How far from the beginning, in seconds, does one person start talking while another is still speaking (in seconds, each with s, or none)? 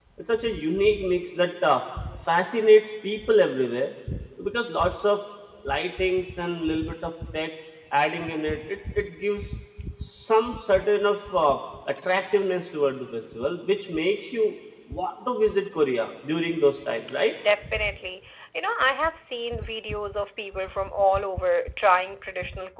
none